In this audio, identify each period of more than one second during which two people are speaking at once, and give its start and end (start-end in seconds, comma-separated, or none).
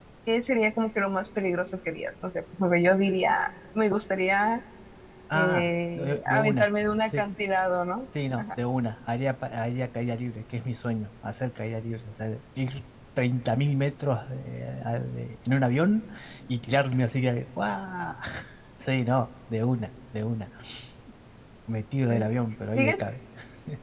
5.3-7.2